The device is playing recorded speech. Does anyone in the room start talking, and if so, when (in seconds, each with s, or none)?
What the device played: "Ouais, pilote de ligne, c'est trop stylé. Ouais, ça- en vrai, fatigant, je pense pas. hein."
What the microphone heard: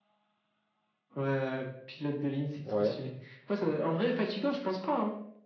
2.6 s